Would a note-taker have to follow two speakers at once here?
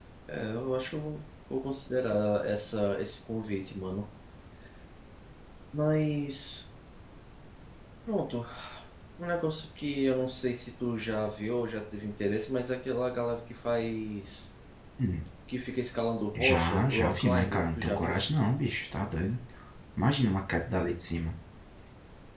Yes, from 16.4 s

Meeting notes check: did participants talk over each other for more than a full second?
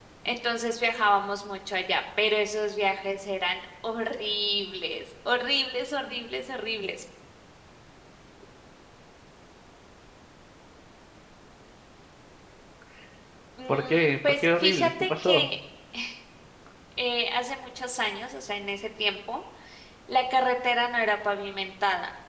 Yes, from 13.7 s

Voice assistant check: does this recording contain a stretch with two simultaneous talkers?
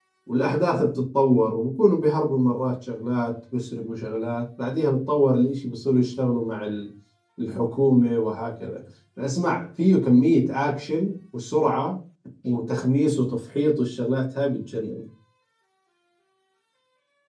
No

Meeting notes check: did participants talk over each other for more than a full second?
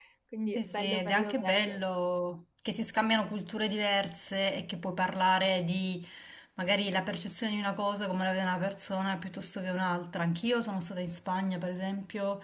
Yes, from 0.6 s

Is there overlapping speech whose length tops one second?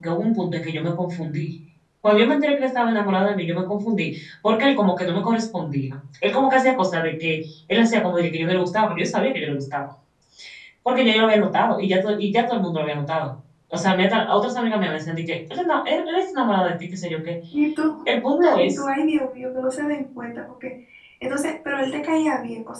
No

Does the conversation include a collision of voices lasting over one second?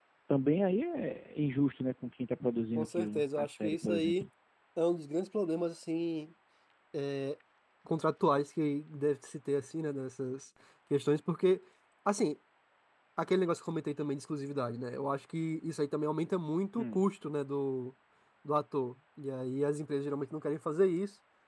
Yes, from 2.8 s

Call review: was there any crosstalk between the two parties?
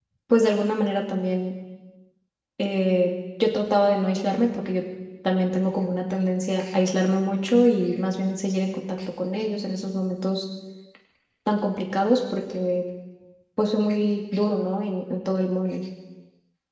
No

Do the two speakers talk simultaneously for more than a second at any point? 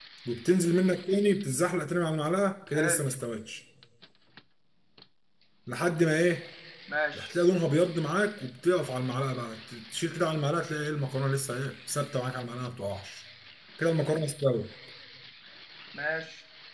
No

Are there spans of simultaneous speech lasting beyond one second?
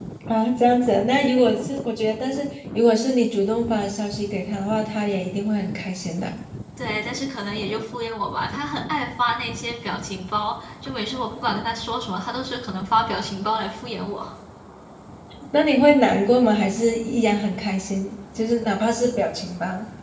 No

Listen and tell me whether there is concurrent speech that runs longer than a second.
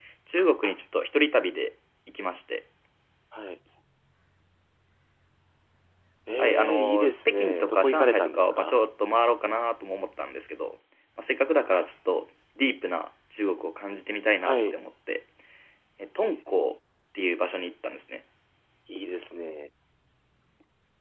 Yes, from 6.4 s

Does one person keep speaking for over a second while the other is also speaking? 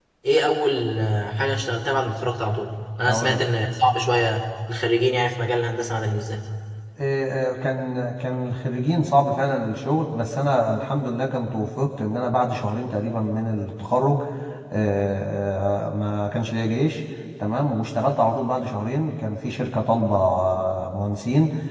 No

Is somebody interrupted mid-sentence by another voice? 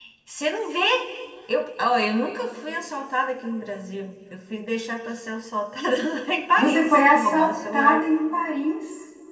Yes, from 6.6 s

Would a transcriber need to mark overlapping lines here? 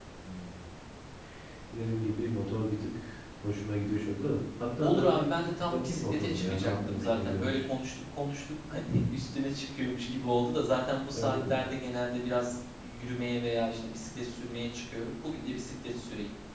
Yes, from 4.8 s

